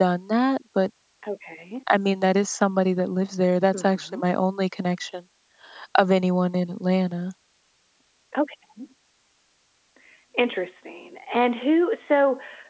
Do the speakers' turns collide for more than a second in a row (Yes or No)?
No